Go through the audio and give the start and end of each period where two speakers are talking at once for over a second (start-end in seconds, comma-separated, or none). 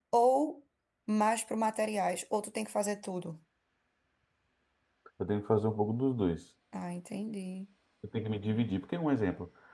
none